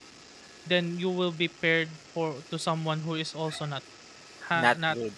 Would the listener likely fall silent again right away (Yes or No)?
Yes